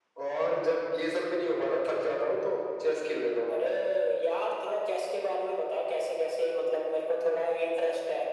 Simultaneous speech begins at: none

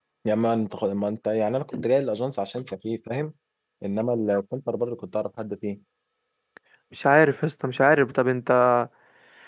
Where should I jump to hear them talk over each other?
none

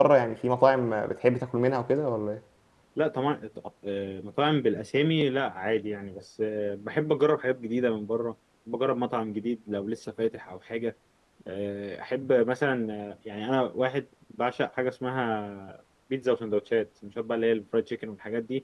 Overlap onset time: none

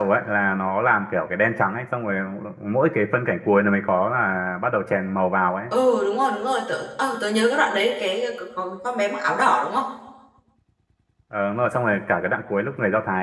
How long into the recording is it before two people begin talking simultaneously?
none

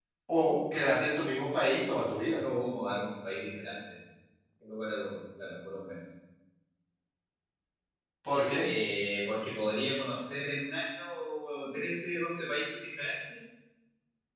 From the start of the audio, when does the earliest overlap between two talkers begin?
none

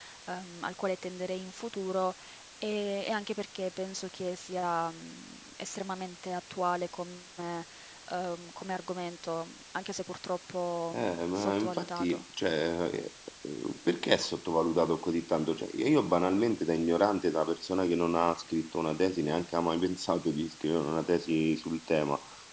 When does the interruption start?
10.9 s

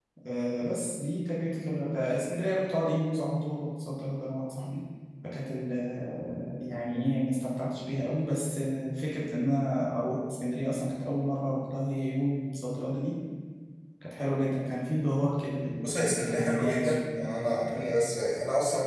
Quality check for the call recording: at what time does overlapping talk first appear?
15.8 s

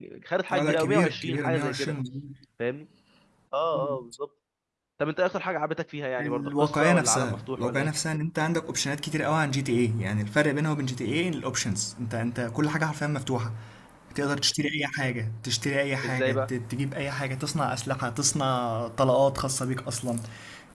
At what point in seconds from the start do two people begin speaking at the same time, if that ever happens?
0.5 s

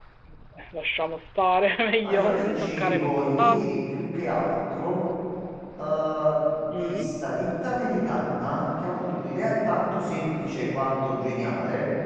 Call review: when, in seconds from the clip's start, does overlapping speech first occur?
2.0 s

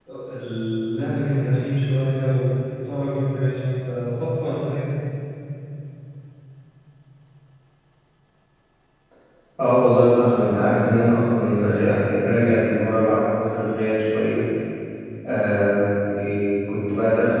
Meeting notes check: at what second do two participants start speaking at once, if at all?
none

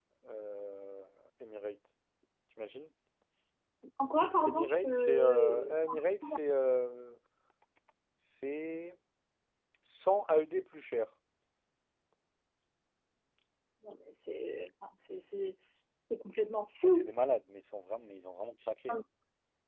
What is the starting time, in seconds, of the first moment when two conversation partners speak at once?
4.4 s

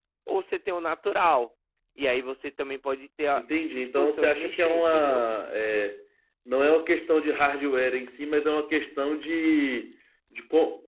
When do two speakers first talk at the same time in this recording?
3.4 s

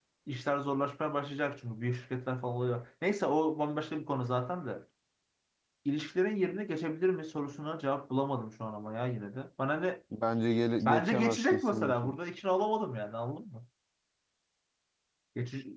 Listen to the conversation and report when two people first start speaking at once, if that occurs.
10.8 s

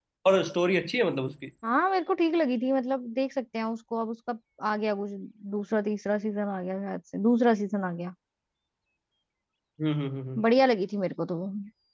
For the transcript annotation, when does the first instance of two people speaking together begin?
none

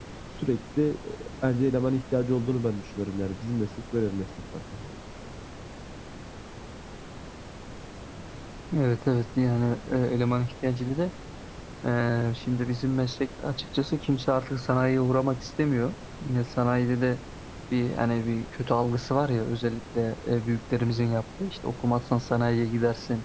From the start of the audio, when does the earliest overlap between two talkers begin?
none

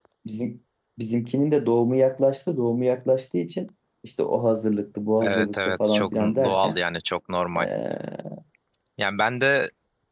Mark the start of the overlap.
5.2 s

